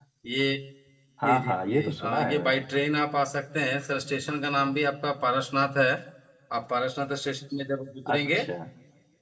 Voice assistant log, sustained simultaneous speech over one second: present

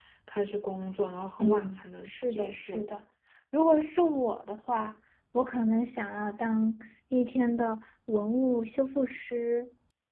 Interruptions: present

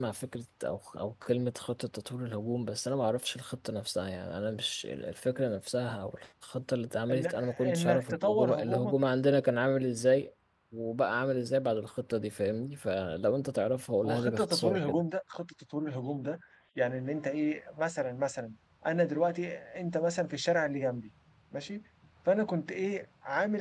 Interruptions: present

